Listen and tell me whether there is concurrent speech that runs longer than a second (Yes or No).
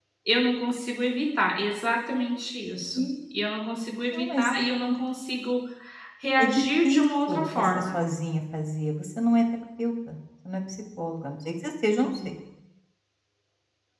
Yes